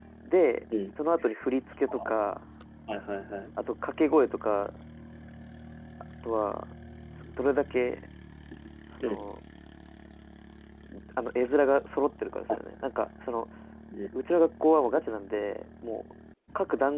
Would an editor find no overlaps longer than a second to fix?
Yes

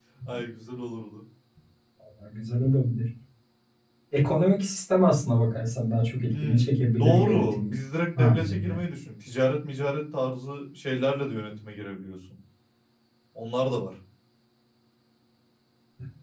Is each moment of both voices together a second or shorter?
No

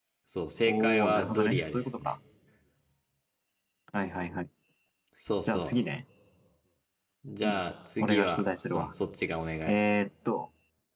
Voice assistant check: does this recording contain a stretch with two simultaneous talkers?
Yes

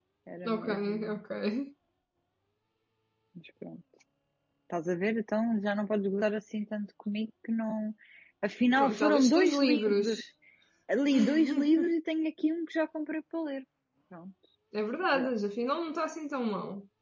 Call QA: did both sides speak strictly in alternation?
No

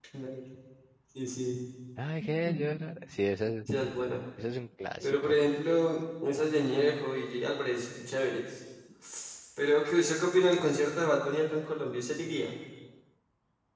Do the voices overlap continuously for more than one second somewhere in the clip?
No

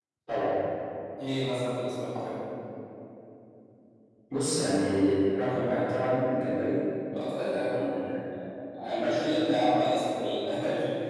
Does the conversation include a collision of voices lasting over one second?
No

